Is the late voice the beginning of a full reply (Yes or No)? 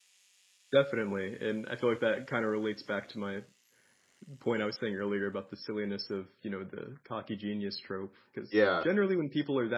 No